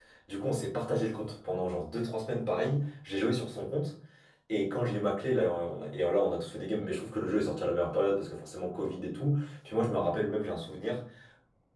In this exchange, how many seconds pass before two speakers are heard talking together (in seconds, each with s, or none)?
none